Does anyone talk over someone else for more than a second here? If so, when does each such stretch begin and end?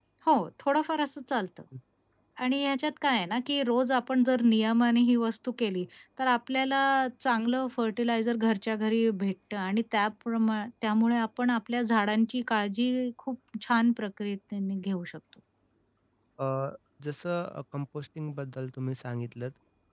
none

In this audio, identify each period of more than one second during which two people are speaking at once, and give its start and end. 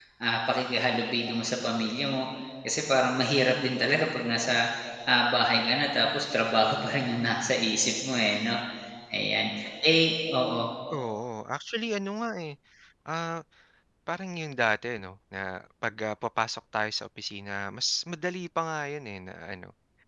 none

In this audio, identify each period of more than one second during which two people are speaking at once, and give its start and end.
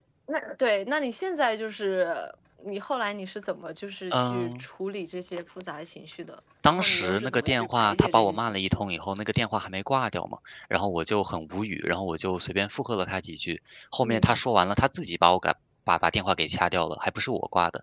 6.7-8.8

